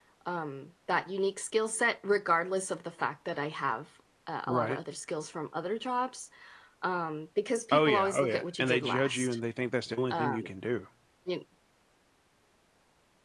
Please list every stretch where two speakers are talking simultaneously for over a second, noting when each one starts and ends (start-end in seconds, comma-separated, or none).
7.7-9.4